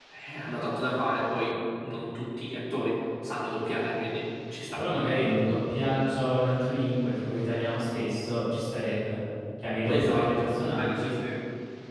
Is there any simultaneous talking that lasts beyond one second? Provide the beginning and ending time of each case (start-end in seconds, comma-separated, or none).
9.9-11.2